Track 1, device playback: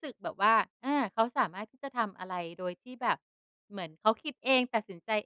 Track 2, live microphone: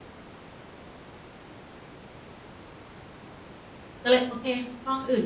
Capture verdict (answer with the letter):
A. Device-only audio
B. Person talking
B